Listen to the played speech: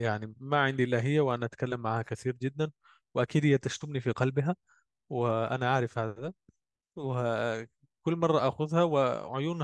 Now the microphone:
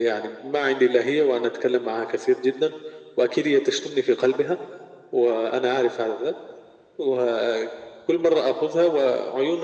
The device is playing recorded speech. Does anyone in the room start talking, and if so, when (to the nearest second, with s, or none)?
none